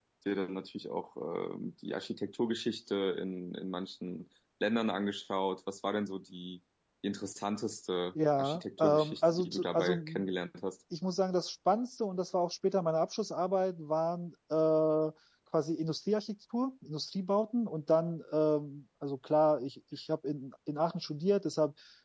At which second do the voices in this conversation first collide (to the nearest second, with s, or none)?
8 s